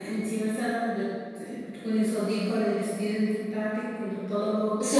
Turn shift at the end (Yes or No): Yes